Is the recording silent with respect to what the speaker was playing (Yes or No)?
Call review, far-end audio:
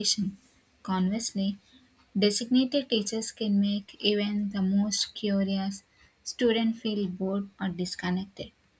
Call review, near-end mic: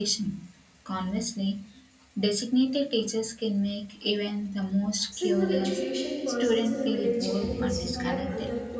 No